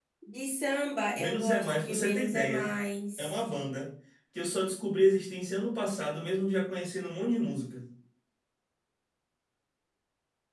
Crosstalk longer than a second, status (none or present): present